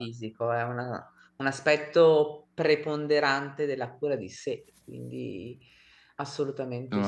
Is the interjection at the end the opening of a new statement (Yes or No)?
Yes